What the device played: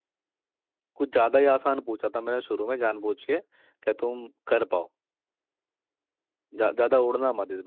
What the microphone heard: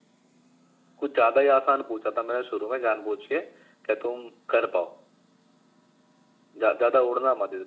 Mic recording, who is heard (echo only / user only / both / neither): echo only